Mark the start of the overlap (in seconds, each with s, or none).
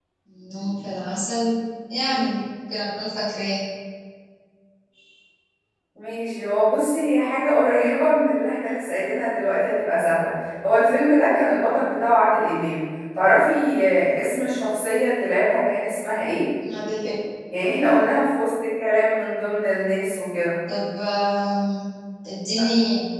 none